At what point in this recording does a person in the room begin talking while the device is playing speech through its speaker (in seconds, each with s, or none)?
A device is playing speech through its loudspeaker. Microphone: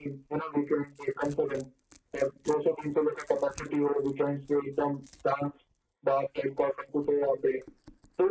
none